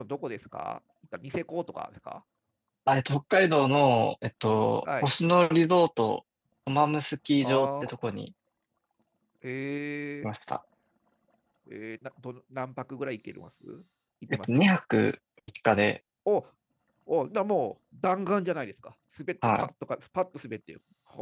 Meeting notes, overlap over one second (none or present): none